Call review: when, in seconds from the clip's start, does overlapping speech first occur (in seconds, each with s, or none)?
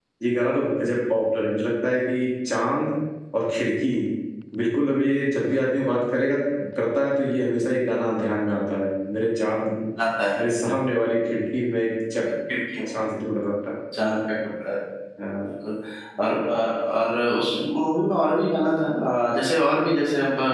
none